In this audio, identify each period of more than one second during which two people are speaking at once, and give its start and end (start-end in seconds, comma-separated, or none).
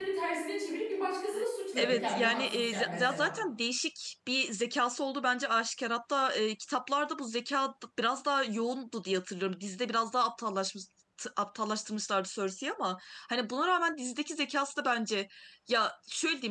1.8-3.3